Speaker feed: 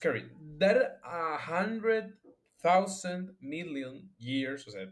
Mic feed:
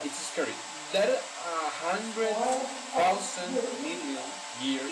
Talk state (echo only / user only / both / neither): both